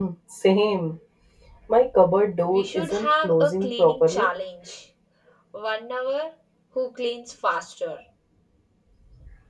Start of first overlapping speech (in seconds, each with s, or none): 2.5 s